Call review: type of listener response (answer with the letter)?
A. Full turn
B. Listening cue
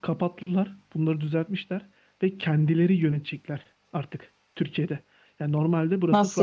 B